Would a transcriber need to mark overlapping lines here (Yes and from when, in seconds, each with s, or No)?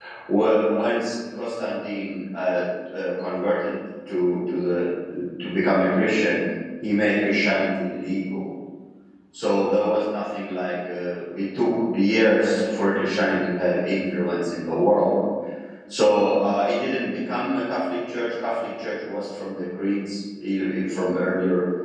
No